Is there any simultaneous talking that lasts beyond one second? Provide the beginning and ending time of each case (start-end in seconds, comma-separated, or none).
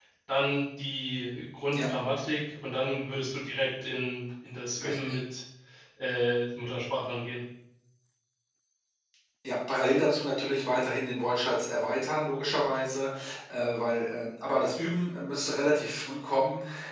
none